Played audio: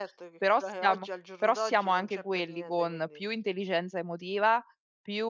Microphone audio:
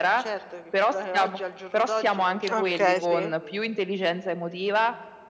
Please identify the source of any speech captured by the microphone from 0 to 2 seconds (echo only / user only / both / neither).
echo only